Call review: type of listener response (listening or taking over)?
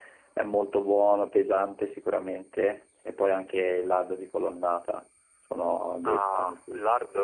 taking over